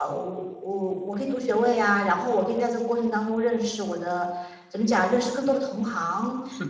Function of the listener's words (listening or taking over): listening